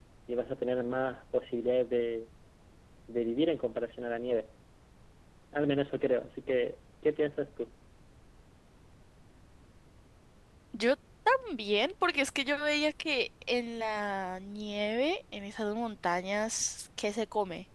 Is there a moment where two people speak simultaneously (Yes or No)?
No